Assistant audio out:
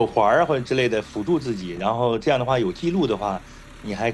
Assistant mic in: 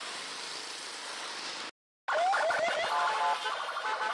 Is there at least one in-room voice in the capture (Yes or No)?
No